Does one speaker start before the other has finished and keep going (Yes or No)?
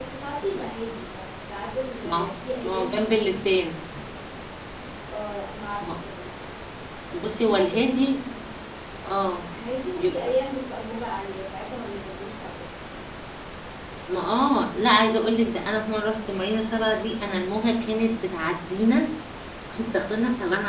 Yes